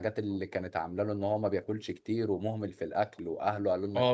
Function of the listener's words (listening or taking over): taking over